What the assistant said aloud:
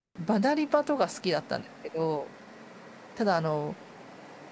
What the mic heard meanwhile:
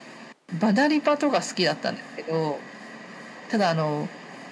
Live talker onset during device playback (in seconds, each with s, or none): none